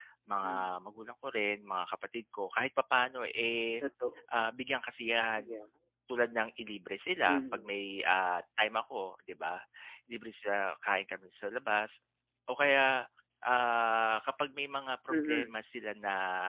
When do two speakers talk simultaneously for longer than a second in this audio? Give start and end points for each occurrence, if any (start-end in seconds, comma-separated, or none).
none